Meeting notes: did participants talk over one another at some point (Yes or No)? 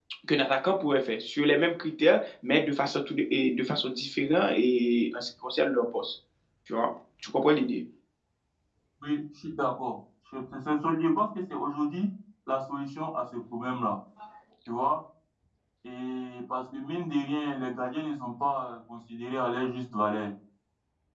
No